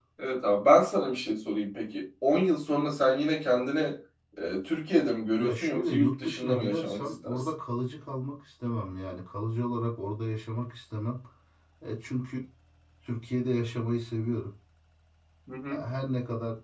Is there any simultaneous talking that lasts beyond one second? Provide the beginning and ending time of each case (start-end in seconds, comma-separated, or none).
5.4-7.5